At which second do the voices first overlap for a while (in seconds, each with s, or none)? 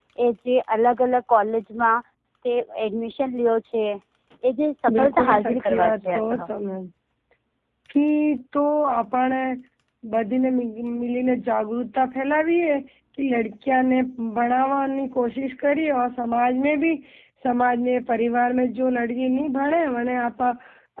5.0 s